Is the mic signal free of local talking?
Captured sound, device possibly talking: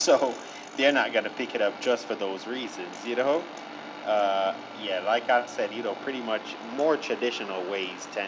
Yes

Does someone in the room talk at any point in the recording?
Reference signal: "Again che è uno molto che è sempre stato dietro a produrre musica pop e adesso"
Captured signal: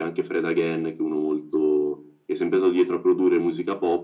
No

